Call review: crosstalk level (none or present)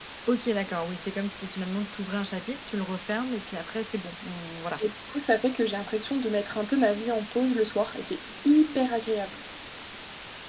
none